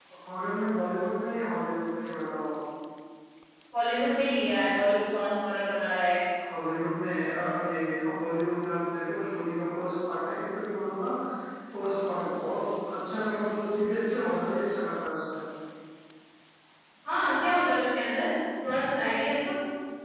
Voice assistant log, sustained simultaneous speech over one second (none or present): none